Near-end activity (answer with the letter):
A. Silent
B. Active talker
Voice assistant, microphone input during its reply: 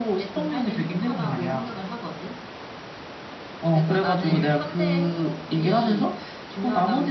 B